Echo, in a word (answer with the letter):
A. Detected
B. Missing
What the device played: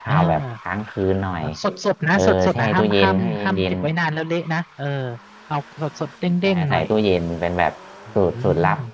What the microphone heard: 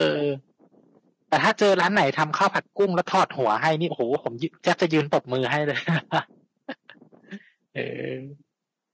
B